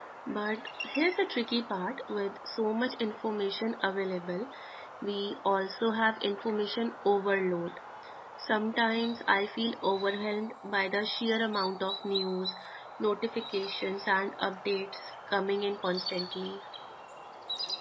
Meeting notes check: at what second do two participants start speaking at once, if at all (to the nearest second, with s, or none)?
none